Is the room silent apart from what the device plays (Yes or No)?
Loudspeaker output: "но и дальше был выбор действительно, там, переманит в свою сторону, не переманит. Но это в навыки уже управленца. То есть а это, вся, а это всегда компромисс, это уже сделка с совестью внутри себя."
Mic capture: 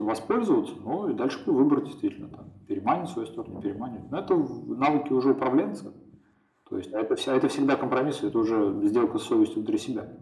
Yes